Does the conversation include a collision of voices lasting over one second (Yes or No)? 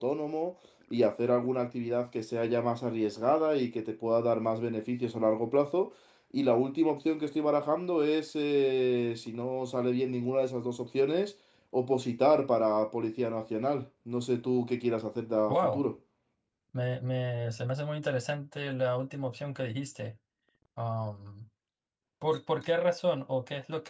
No